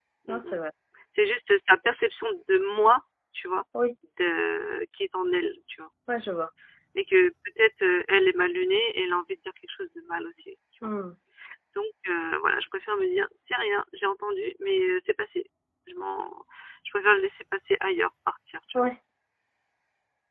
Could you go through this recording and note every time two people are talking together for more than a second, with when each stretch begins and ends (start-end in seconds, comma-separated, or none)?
none